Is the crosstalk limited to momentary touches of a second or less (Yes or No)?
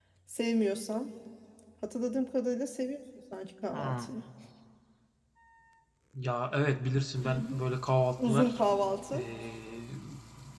Yes